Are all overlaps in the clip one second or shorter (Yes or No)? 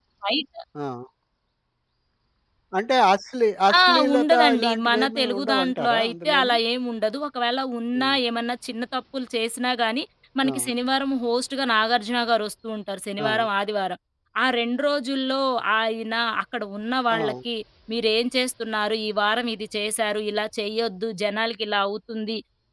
No